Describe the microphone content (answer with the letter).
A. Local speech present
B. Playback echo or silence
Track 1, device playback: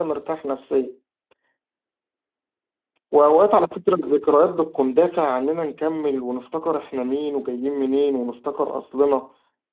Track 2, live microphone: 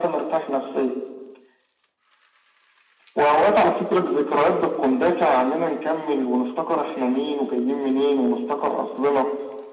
B